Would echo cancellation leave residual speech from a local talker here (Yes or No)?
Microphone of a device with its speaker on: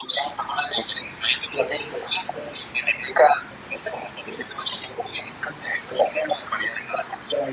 No